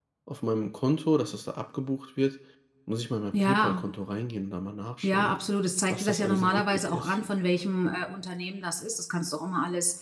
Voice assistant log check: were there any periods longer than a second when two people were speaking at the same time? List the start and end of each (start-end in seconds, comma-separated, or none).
5.9-7.2